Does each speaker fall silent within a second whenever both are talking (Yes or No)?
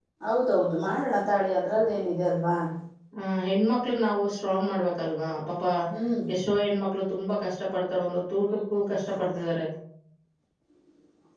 Yes